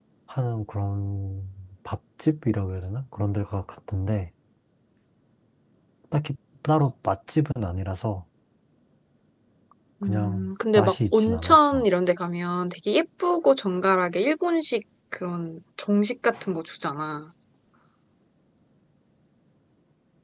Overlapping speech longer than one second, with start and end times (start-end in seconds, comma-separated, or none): 10.0-11.8